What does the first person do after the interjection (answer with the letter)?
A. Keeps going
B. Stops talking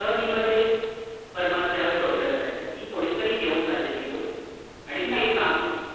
A